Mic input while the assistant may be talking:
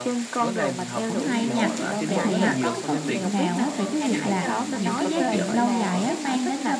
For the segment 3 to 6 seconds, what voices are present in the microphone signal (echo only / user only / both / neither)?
both